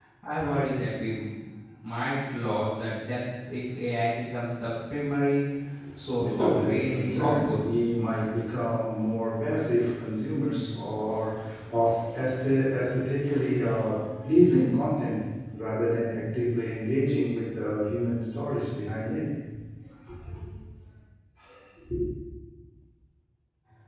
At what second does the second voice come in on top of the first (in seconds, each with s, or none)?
6.2 s